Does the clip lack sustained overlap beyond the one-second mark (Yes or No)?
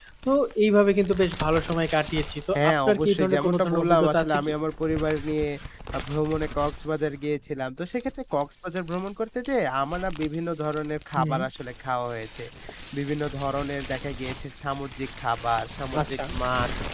No